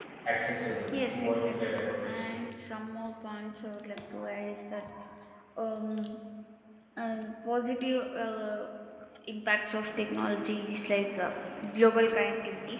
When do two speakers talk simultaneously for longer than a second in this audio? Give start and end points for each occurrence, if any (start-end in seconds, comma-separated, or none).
0.9-2.2